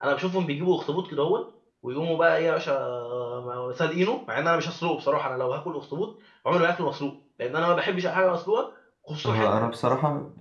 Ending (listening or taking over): taking over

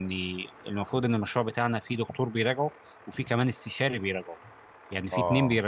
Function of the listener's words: listening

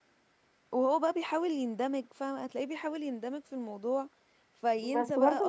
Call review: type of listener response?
taking over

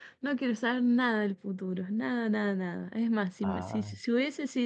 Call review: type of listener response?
listening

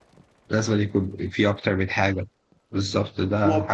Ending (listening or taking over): listening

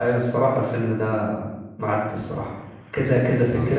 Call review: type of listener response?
listening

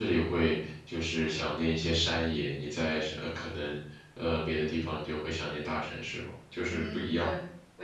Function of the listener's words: taking over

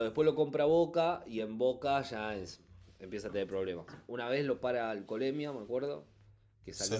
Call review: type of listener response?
listening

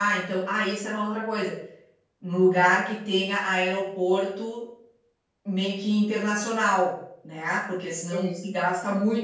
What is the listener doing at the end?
listening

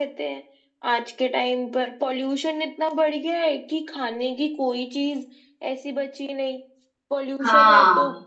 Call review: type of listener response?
listening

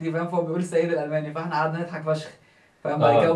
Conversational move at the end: listening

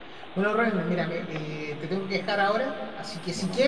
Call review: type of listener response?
listening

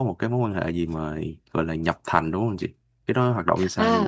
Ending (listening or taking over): taking over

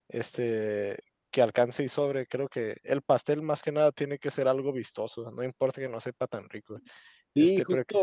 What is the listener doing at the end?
taking over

